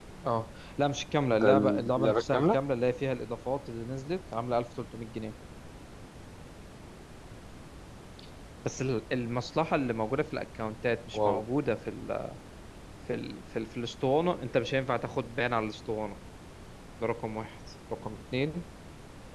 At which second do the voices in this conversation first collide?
1.3 s

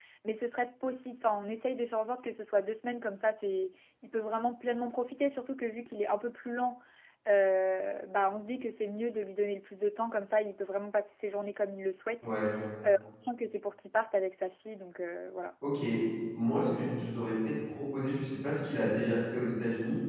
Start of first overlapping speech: none

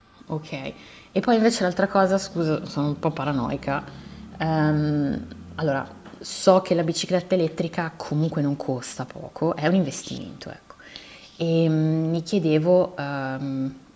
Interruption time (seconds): none

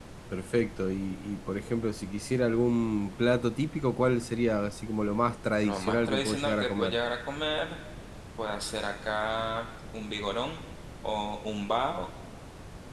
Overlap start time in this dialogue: 5.6 s

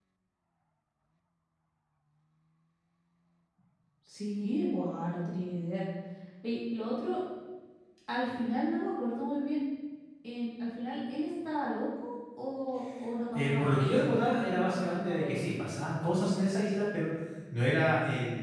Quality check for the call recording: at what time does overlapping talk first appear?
13.3 s

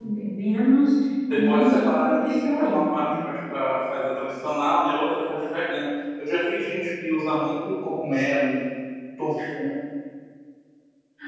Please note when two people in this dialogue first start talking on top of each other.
1.3 s

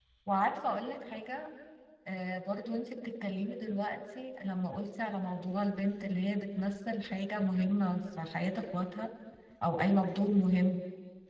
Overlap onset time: none

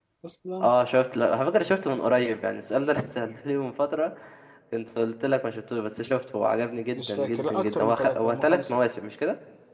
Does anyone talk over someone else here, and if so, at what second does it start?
7.0 s

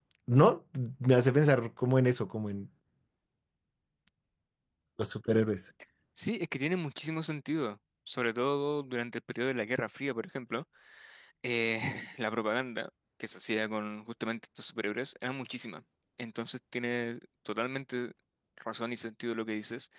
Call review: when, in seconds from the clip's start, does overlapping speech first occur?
none

